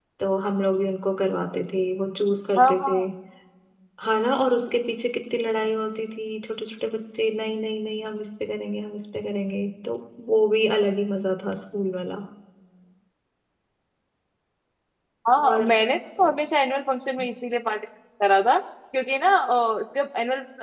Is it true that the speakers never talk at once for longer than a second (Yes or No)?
Yes